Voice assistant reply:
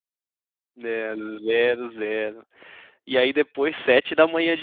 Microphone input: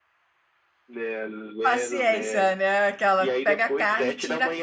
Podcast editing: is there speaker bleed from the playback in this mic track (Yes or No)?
Yes